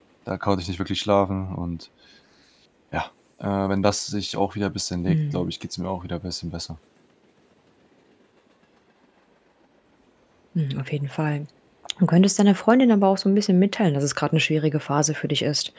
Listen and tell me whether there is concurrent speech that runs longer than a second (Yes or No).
No